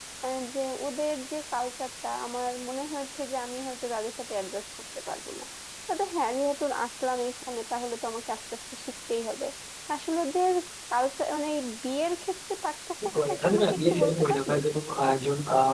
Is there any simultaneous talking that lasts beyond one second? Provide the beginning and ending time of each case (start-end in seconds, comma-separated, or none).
13.1-14.6